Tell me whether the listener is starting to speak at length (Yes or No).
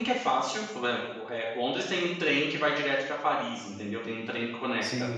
Yes